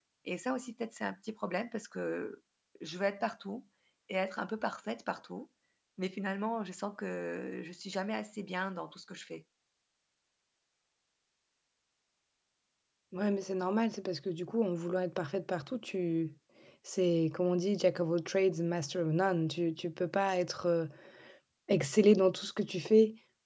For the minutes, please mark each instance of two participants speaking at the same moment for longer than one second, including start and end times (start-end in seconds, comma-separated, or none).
none